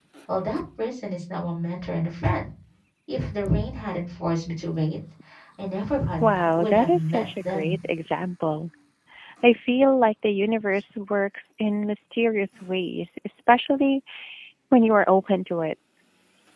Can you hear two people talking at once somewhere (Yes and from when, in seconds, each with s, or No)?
Yes, from 6.2 s